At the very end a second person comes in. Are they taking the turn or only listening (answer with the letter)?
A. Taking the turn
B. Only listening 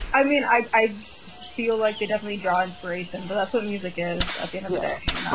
A